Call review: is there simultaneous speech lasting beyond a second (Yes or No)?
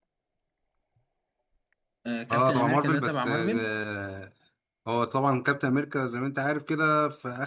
Yes